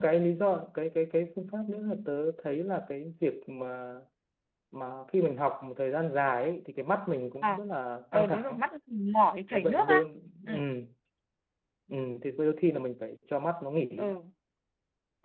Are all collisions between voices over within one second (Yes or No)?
Yes